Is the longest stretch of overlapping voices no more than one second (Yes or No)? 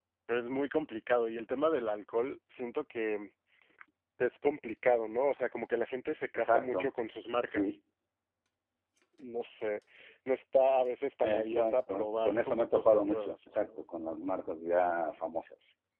No